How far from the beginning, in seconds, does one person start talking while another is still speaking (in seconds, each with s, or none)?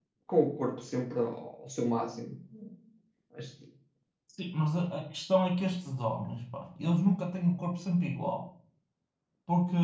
none